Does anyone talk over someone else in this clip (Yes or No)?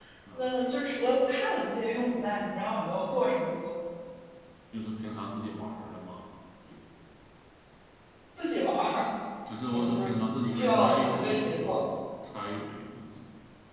Yes